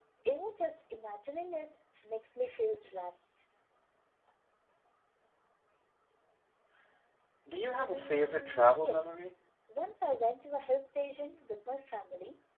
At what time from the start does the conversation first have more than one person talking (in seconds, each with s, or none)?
7.9 s